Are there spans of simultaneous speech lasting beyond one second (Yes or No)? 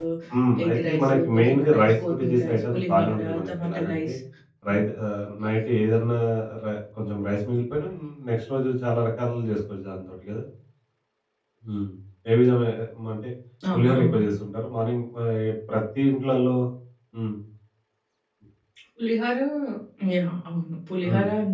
Yes